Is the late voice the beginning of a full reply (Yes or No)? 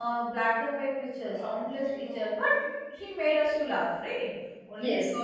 No